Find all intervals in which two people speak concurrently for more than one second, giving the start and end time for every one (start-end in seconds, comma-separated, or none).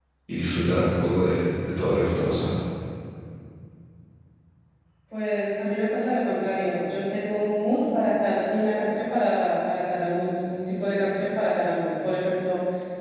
none